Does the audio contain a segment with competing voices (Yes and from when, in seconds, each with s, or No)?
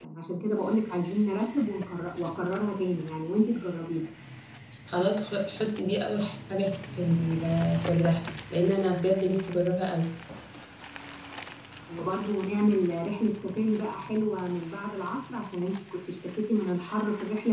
No